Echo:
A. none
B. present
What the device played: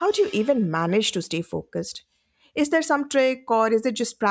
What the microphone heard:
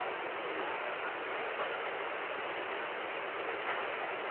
A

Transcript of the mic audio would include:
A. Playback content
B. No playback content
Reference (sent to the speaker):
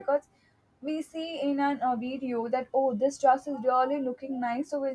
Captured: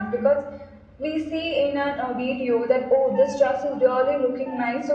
A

